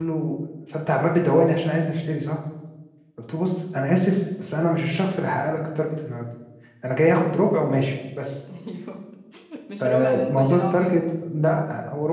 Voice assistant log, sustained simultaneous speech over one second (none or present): present